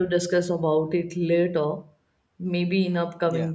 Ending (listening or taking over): listening